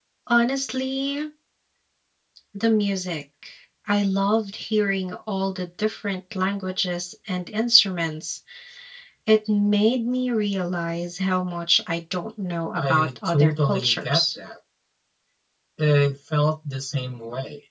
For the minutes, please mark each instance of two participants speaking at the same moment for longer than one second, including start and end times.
12.8-14.2

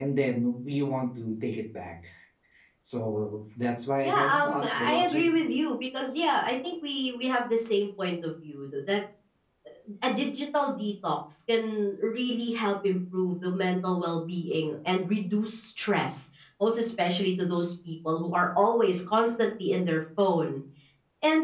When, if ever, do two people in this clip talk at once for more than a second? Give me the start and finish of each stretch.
4.0-5.4

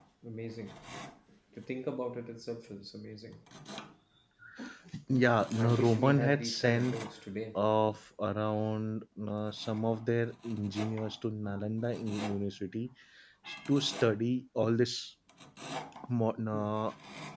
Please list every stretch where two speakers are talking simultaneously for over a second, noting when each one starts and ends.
5.6-7.0

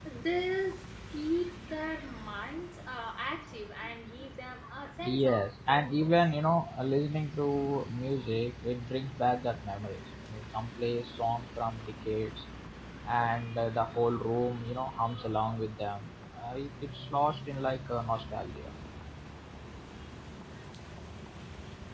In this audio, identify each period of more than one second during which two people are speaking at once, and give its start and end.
5.0-6.2

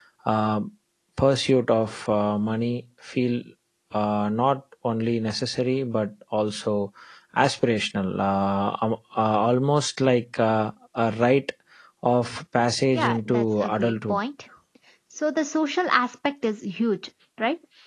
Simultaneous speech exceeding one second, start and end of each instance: 12.9-14.2

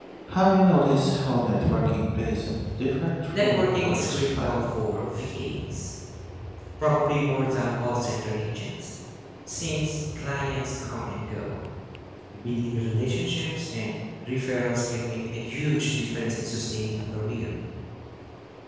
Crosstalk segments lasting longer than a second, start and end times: 3.3-4.5

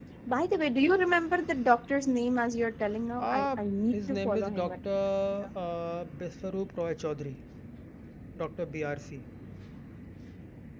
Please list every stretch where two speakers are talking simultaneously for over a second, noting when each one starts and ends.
3.2-4.8

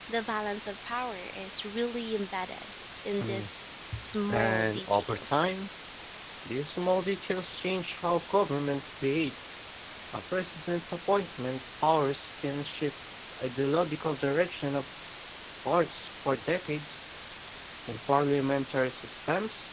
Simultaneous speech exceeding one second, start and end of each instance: 4.3-5.5

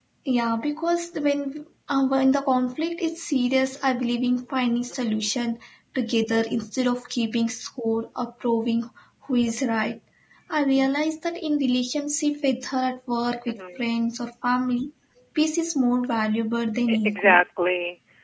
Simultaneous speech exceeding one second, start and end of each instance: none

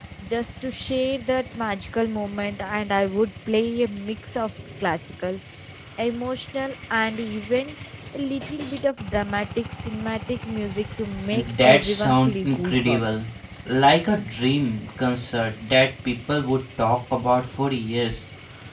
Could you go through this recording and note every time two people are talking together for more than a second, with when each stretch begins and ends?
11.3-13.2

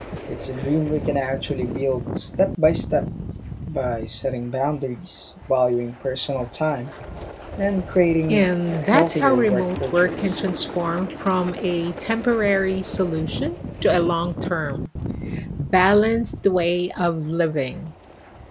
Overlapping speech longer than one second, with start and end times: 8.3-10.4

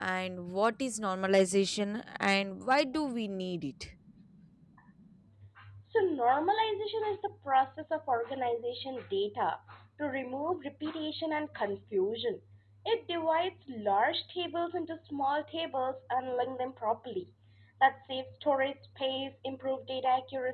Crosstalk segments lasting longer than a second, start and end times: none

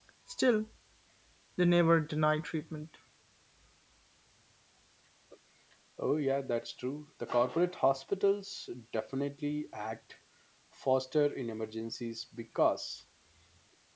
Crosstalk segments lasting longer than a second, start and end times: none

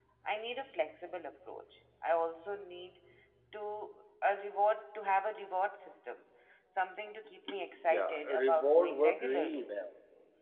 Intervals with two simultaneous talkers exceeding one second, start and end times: 7.9-9.7

